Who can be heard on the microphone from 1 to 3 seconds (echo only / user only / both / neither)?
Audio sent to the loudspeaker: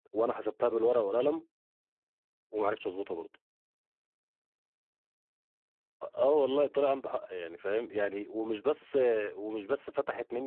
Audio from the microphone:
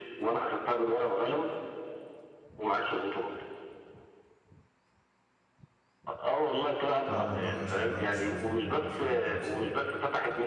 echo only